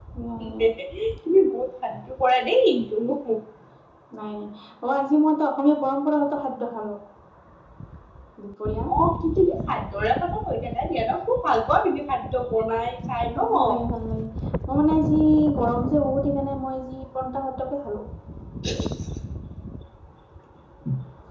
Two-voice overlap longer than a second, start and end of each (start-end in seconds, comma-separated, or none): none